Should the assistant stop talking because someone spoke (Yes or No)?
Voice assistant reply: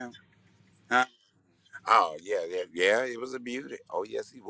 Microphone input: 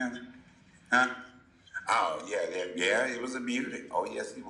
No